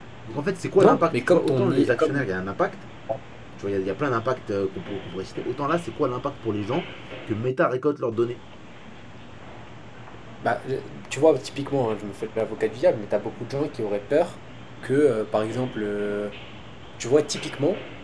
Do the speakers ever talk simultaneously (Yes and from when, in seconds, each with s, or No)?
Yes, from 0.8 s